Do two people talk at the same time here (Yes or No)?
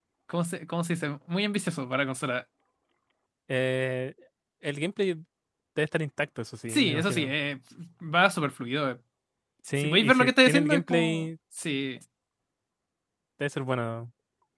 Yes